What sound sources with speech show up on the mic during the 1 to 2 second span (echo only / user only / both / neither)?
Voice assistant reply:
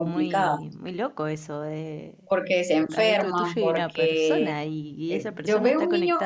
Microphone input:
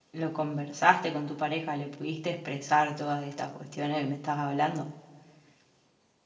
user only